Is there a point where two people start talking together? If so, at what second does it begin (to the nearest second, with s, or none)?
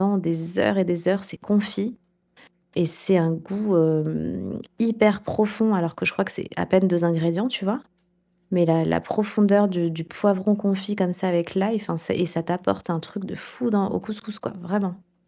none